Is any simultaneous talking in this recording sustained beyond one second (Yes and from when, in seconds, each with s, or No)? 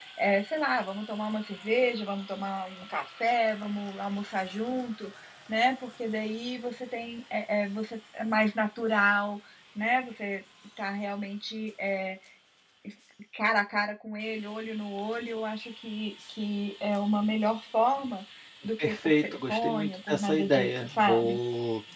Yes, from 18.8 s